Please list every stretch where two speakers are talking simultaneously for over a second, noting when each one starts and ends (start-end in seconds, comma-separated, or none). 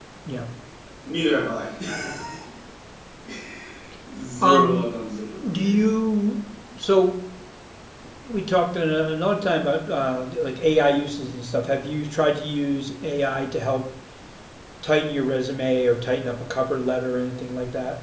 none